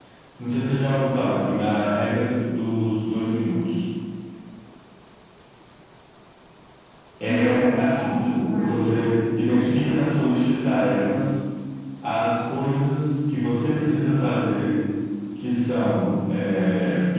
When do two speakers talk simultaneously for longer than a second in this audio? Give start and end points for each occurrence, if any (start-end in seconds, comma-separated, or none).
7.2-8.8